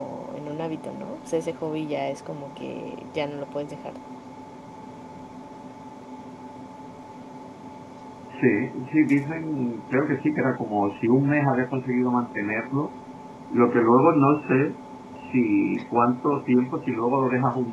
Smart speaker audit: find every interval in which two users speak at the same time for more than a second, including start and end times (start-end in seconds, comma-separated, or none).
none